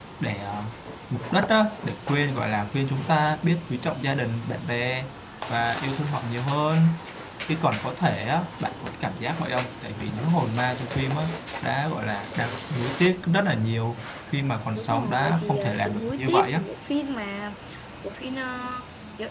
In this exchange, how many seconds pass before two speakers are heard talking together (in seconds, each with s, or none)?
14.8 s